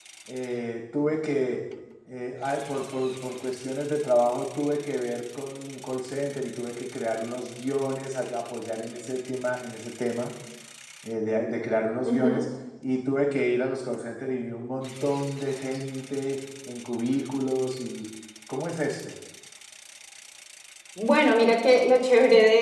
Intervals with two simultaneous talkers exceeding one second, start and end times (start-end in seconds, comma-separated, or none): none